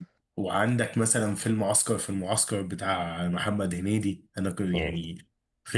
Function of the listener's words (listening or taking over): listening